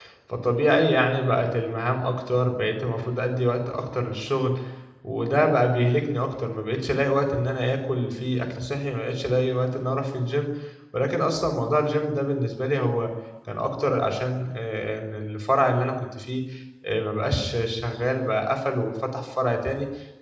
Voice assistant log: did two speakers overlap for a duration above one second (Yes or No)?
No